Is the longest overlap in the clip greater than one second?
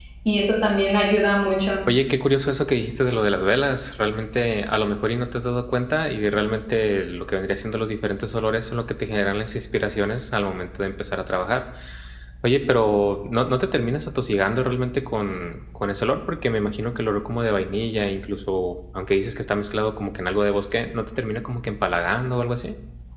No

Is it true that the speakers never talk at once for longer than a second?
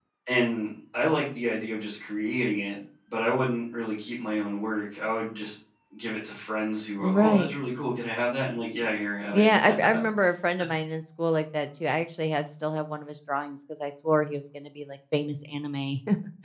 Yes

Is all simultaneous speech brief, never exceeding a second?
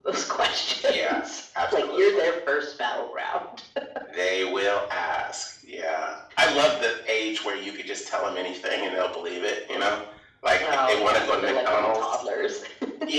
No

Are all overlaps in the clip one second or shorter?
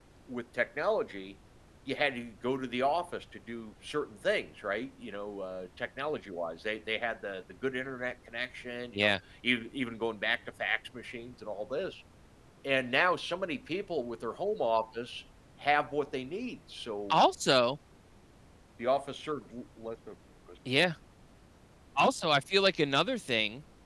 Yes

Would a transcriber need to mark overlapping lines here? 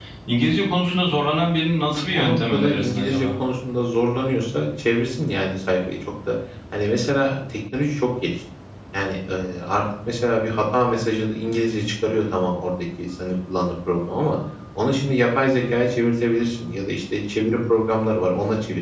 Yes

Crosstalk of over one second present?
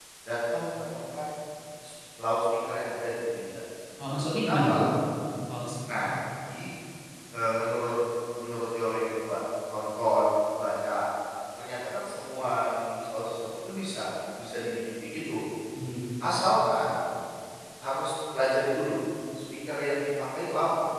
No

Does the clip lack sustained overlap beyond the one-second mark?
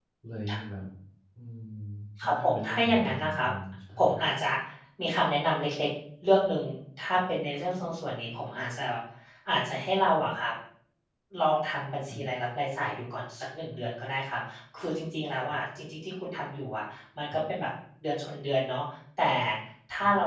No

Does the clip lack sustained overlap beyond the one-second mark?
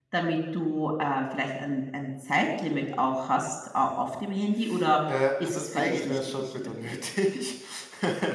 No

